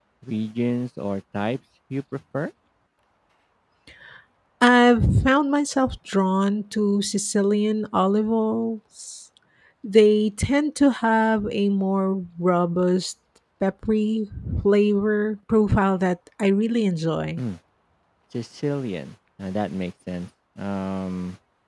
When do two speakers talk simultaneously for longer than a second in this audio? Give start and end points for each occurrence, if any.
none

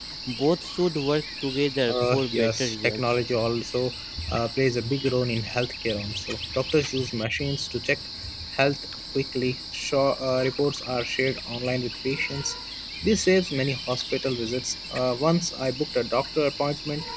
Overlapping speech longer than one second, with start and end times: 1.9-3.2

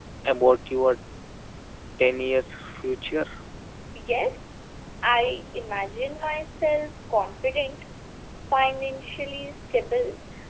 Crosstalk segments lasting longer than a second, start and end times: none

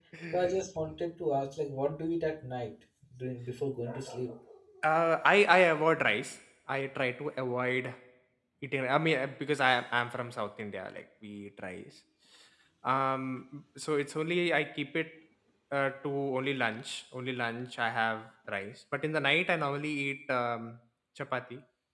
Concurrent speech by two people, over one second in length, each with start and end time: none

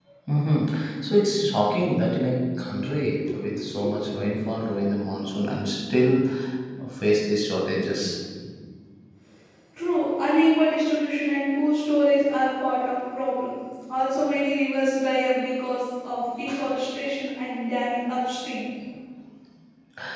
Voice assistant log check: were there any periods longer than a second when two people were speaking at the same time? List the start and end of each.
none

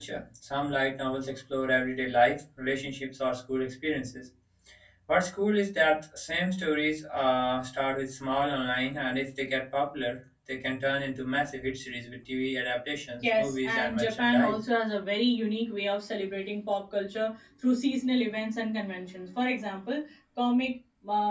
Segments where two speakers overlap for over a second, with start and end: 13.4-14.6

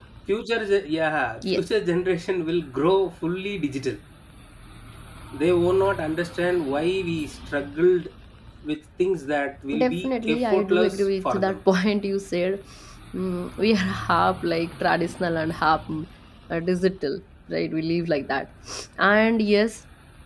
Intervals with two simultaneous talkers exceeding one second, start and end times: 9.8-11.6

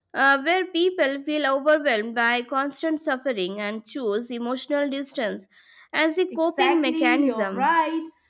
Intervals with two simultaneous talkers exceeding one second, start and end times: 6.3-7.7

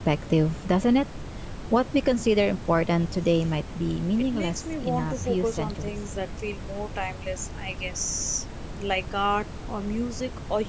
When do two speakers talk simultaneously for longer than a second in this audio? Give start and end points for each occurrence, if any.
4.3-6.0

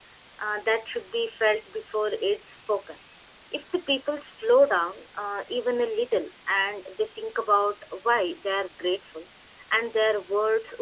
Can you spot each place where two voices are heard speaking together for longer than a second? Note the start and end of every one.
none

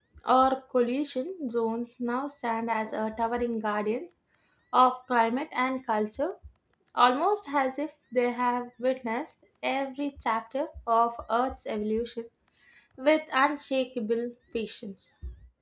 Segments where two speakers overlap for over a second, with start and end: none

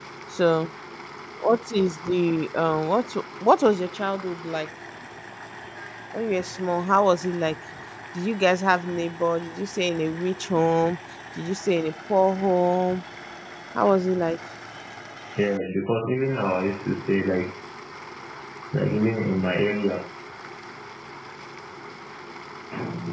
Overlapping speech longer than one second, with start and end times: none

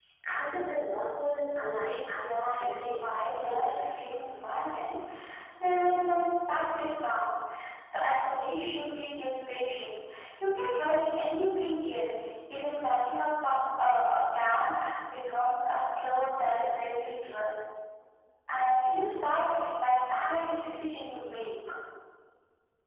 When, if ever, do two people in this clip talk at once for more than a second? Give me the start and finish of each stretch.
2.3-3.8

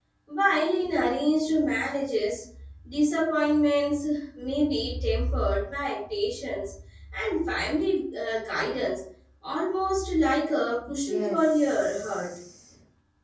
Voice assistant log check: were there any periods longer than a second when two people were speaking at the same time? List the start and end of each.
11.1-12.3

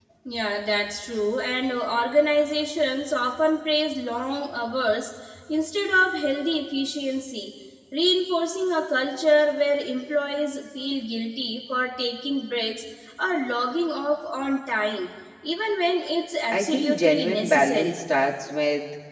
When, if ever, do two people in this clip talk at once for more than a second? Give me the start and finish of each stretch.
16.5-18.0

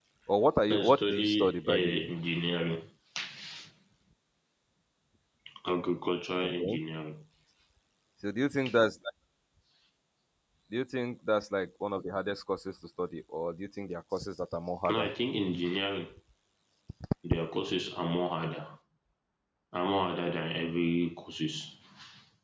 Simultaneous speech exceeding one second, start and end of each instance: 0.7-2.1

